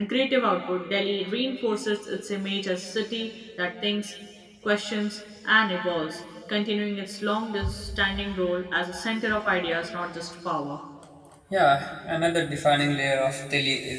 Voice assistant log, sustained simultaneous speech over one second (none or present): none